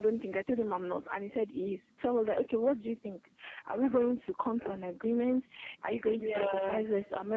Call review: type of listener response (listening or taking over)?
listening